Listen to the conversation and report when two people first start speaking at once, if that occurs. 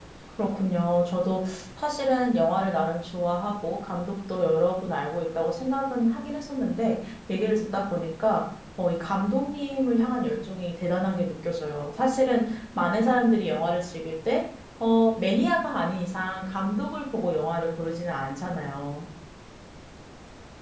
none

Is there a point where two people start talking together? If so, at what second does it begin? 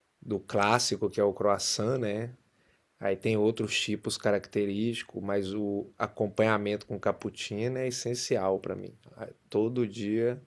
none

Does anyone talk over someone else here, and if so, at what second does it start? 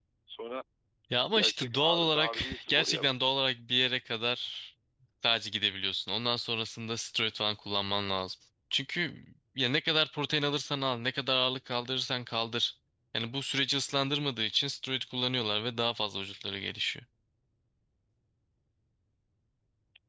1.3 s

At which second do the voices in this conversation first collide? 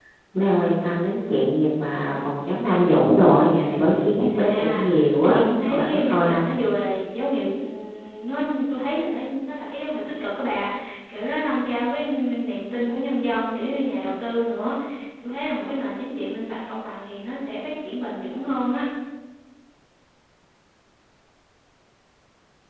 4.2 s

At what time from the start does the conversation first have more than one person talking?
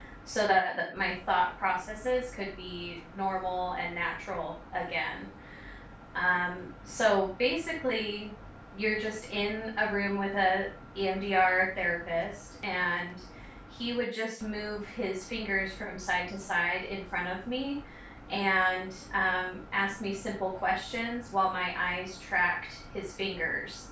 none

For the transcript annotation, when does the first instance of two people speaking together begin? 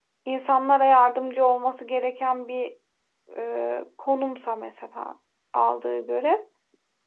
none

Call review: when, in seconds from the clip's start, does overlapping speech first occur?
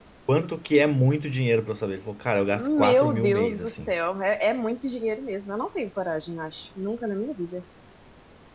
2.5 s

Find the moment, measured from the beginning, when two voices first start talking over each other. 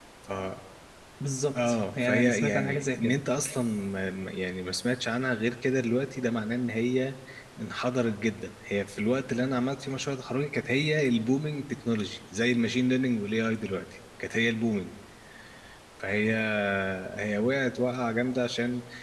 1.6 s

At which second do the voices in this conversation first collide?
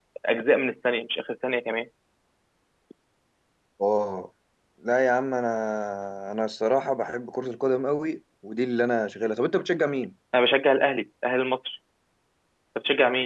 none

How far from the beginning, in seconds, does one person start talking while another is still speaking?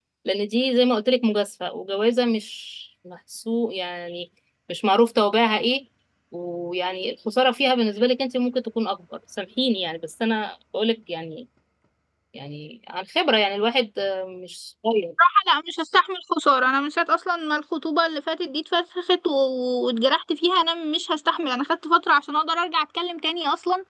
none

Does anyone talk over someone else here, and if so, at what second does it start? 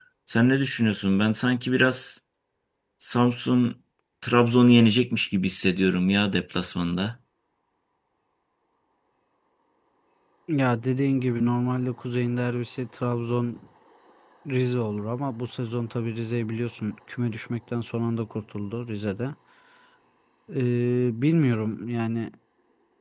none

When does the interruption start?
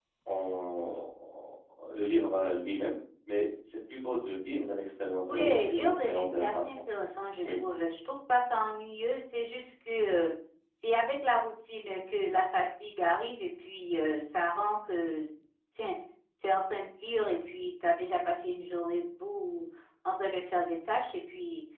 5.2 s

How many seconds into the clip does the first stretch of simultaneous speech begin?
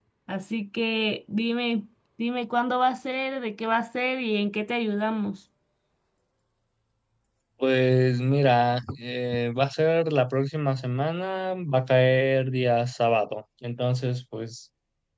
none

